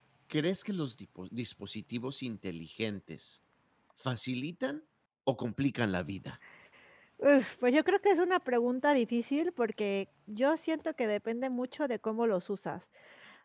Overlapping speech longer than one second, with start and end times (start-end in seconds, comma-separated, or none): none